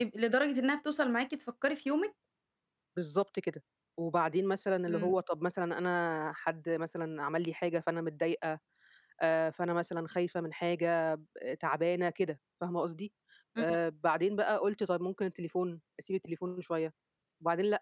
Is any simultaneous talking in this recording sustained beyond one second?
No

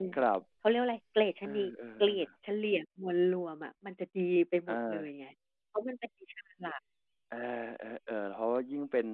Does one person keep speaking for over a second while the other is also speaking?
No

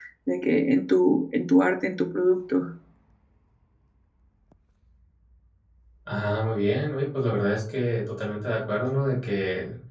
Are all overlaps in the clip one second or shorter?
Yes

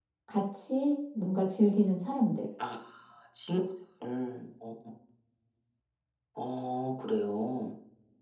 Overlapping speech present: No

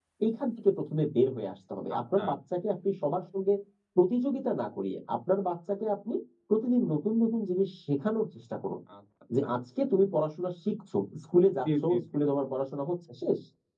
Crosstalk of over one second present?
No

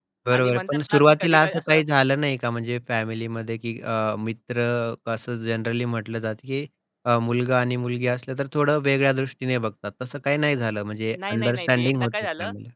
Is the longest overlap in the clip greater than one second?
Yes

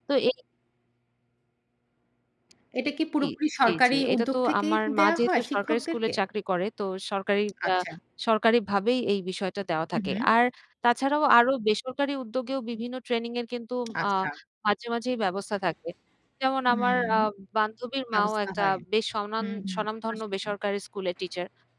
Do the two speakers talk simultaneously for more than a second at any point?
Yes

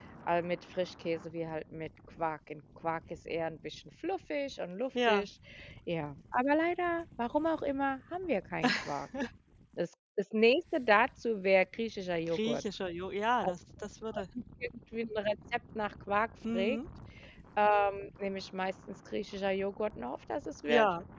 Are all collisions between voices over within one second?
Yes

